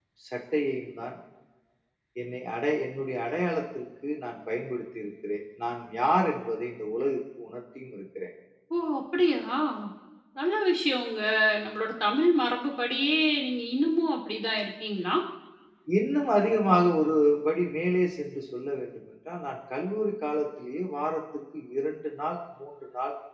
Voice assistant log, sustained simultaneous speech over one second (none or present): none